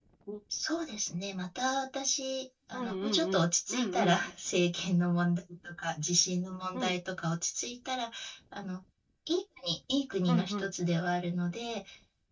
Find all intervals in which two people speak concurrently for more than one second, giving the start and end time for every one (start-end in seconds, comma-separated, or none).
2.7-4.2